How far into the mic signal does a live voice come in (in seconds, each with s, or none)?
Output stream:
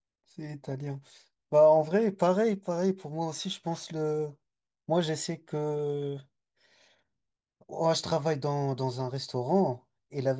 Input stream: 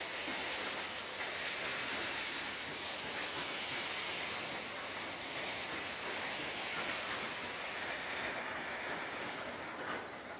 none